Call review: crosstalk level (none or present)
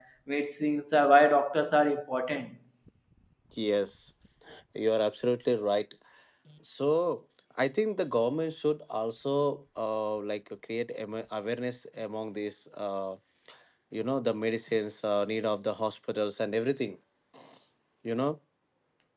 none